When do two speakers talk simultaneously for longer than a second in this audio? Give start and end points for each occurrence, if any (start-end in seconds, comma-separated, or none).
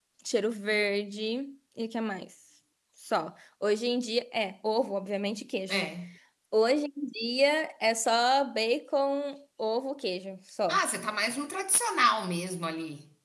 none